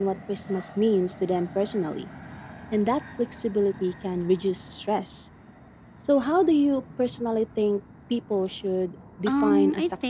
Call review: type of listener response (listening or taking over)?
taking over